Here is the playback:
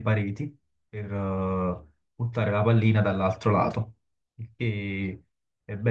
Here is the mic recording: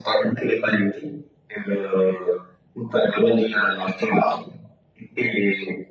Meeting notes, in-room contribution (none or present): none